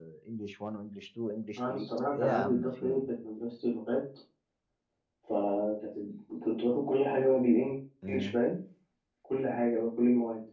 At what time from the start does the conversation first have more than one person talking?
1.6 s

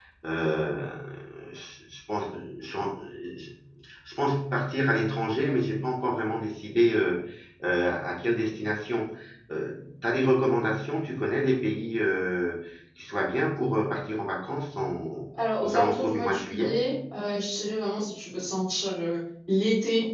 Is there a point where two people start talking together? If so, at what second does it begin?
15.6 s

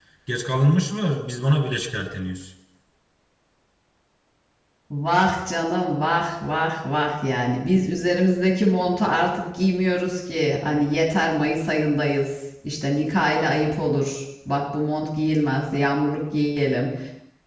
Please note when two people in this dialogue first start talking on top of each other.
none

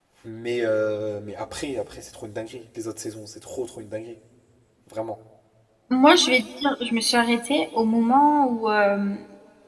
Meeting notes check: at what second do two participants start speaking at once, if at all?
none

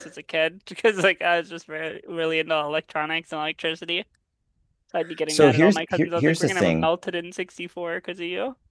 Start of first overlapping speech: 5.3 s

